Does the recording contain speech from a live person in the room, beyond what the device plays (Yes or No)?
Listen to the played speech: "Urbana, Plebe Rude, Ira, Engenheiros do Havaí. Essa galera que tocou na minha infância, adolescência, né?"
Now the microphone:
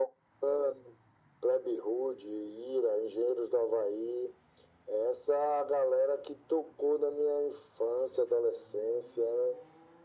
No